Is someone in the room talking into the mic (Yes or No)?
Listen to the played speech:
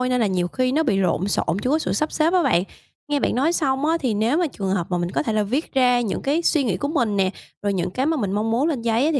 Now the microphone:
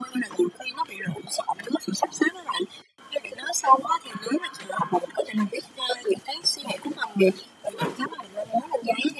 No